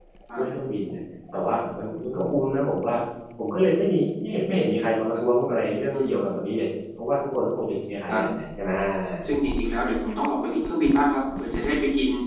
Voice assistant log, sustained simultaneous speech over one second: none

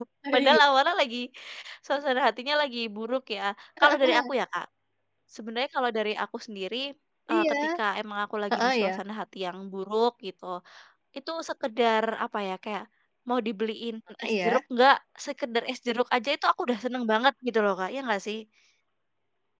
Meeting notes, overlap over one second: none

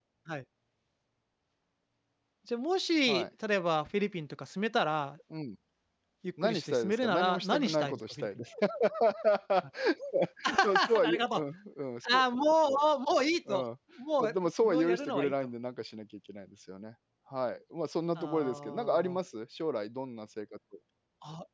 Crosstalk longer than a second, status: present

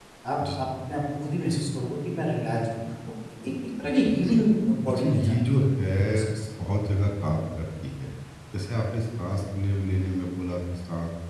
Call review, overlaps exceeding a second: present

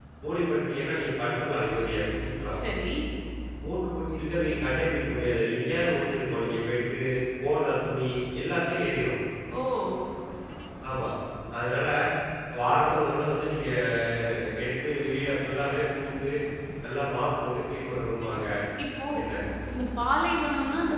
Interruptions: none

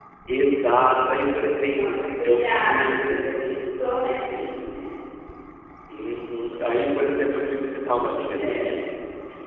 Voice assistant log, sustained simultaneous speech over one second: present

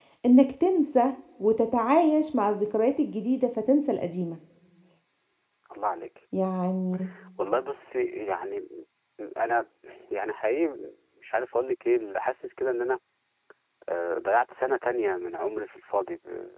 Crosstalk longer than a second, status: none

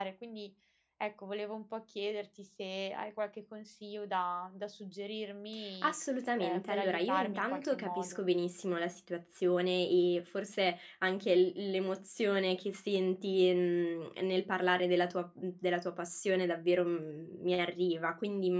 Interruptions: present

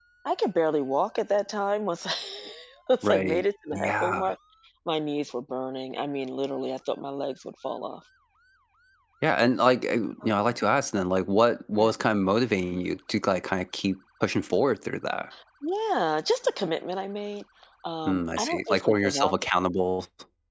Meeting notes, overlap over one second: present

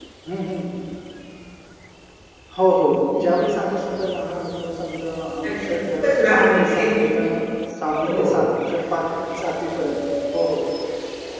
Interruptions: present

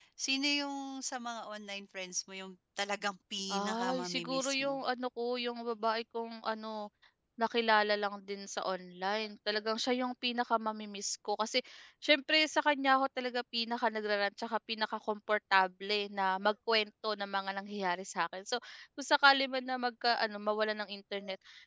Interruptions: present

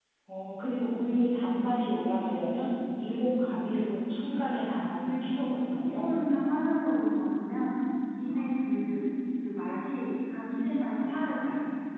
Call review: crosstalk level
present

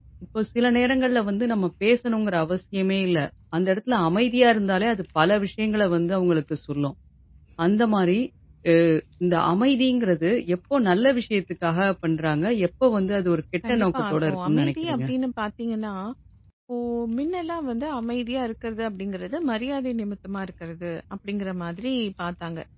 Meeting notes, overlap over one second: present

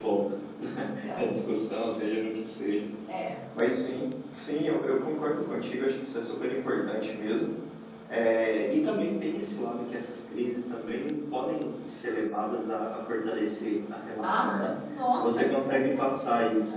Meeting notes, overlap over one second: present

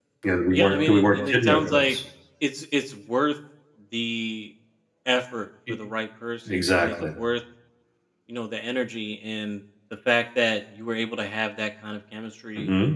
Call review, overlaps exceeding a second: present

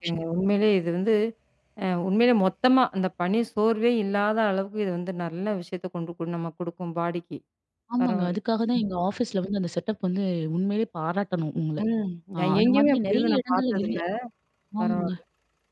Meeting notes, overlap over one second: present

